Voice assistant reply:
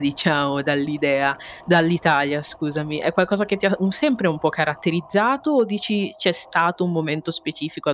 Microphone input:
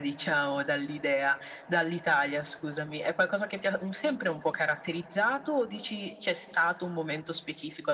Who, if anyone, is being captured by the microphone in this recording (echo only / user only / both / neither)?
echo only